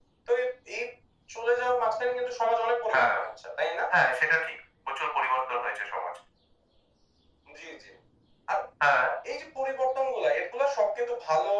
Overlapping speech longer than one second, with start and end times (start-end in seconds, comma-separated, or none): none